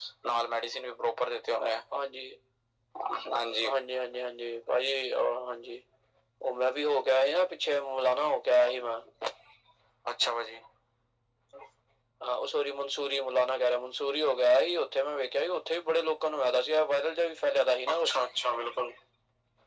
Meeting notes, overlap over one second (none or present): none